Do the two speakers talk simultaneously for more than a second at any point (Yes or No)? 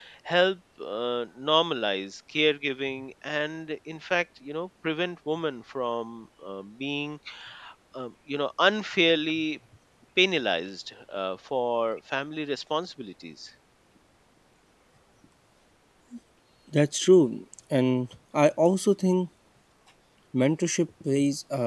No